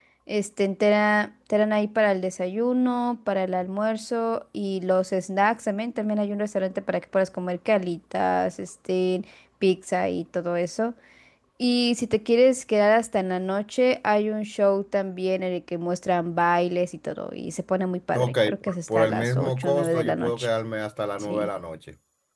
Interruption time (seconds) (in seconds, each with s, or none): 18.1 s